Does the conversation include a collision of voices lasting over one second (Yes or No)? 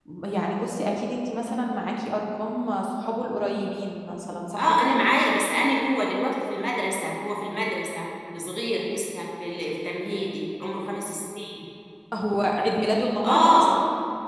No